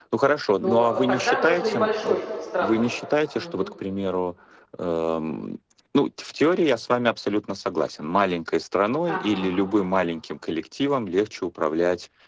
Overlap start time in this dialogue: 1 s

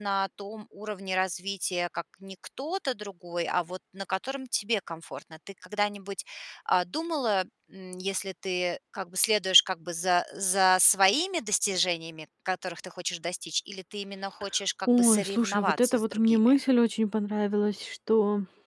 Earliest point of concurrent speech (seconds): 15 s

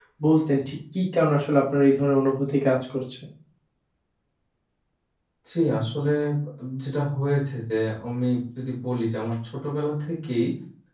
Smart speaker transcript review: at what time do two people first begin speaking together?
none

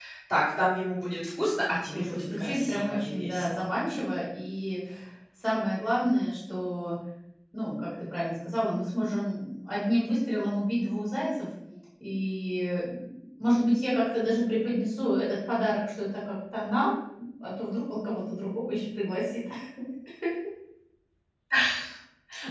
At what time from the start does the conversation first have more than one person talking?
2 s

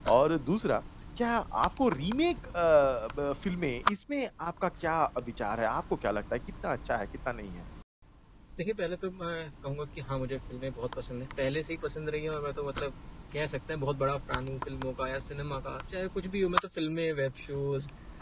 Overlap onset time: none

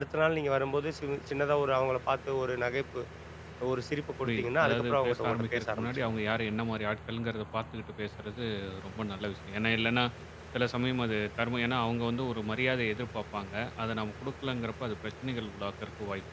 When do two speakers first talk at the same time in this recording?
4 s

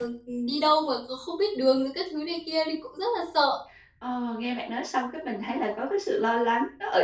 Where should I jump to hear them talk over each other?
none

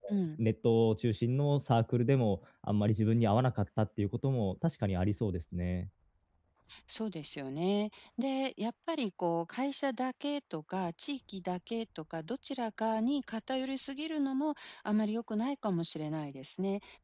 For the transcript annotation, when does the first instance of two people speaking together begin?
none

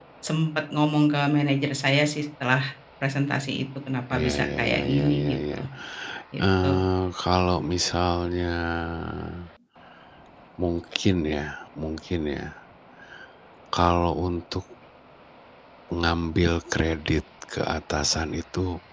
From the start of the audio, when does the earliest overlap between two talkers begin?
4 s

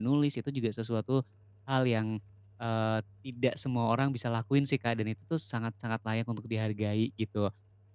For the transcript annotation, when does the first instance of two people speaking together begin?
none

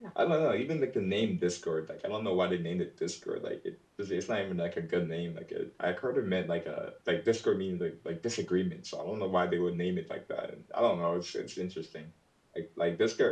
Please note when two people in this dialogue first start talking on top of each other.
none

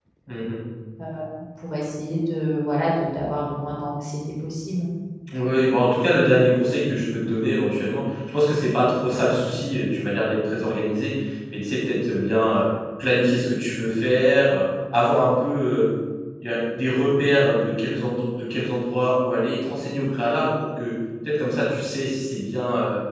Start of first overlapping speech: none

